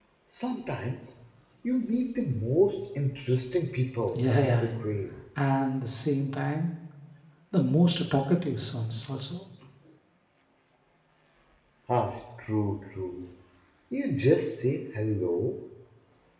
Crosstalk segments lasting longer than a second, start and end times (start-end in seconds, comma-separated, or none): none